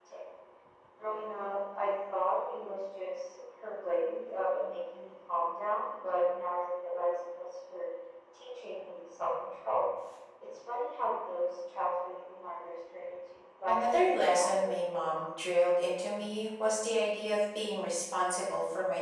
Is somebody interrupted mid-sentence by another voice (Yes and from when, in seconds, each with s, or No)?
Yes, from 13.7 s